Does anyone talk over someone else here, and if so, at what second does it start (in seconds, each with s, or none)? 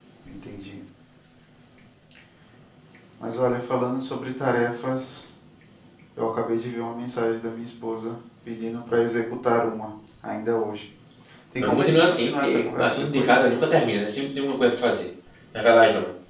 11.6 s